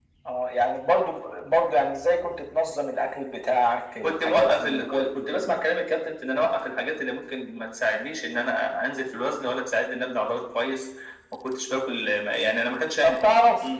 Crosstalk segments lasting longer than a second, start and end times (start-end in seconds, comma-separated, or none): 4.0-5.5